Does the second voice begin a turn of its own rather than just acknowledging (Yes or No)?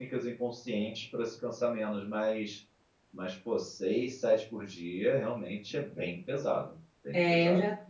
Yes